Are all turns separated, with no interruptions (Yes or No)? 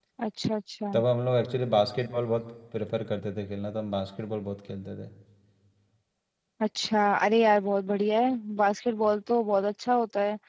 Yes